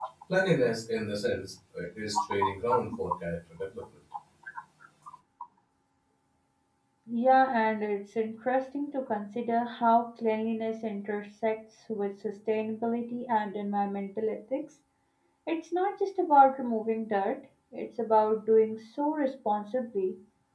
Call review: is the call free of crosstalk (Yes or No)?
Yes